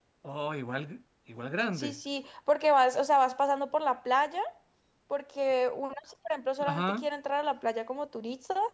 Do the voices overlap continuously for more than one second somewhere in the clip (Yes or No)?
No